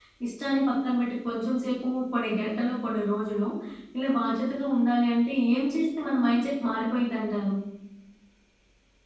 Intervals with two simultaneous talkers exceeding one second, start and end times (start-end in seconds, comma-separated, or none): none